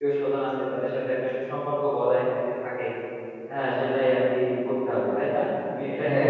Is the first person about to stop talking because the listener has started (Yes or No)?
Yes